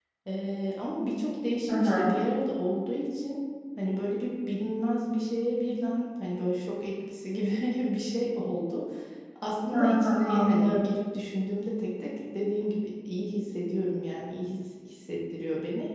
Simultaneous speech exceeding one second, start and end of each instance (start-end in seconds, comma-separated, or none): 9.7-10.9